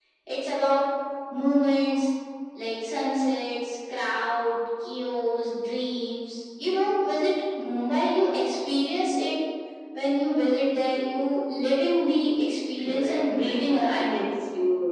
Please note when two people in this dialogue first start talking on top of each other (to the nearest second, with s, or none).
13 s